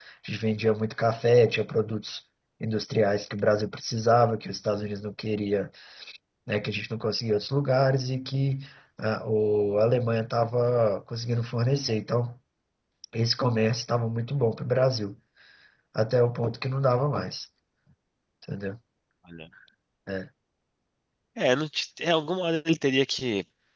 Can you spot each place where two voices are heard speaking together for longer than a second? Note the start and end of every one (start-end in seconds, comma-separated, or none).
none